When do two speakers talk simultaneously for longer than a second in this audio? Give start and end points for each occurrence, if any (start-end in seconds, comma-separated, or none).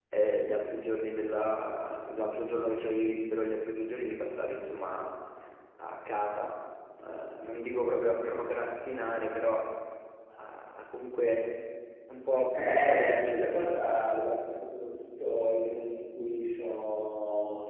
12.5-13.8